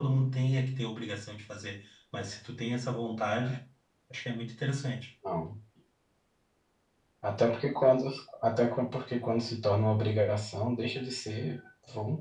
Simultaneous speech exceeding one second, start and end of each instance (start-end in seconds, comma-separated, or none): none